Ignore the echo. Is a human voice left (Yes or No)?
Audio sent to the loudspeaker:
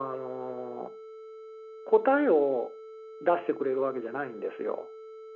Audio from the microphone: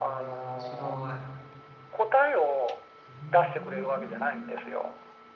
Yes